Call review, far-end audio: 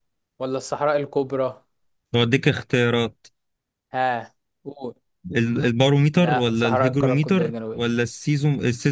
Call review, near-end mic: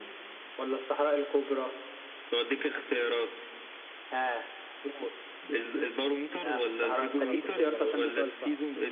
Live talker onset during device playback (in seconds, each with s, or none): 7.2 s